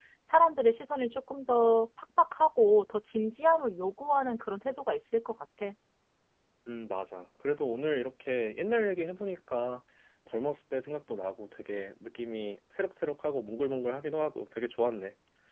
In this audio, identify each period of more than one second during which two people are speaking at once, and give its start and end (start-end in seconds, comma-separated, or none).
none